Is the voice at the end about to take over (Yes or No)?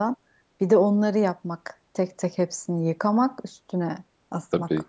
Yes